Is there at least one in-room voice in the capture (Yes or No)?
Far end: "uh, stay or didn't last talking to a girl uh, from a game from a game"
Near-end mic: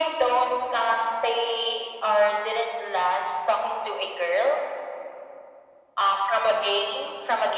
No